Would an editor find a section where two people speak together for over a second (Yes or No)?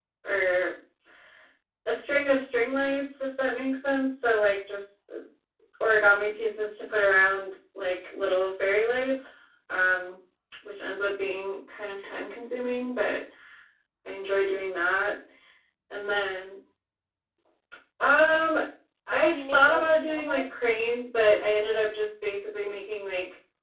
Yes